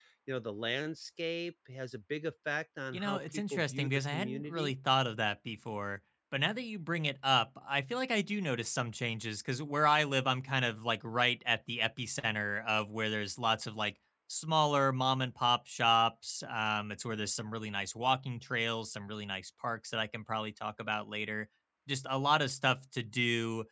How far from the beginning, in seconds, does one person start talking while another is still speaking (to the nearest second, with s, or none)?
3 s